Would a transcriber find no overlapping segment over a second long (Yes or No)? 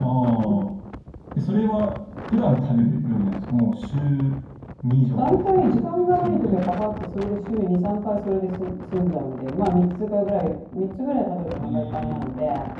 No